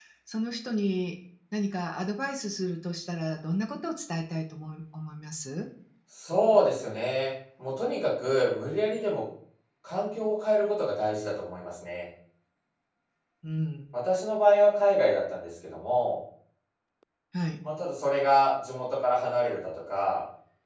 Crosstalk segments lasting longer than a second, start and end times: none

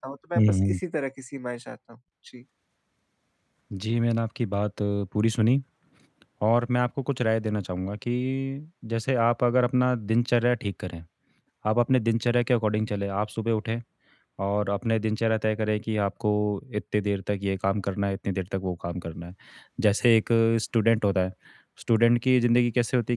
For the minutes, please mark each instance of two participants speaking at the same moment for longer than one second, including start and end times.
none

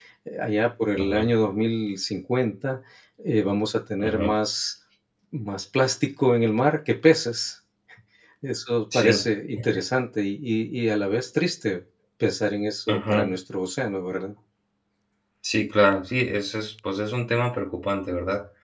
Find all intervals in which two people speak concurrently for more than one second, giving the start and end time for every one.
none

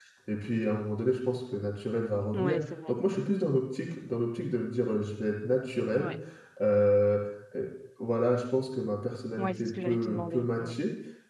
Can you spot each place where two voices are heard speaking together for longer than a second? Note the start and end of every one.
9.4-10.7

